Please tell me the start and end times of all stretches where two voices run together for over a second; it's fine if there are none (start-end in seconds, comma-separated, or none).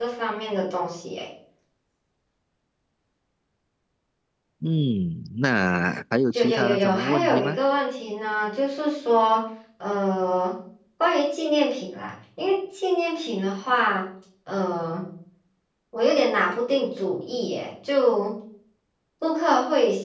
6.3-7.6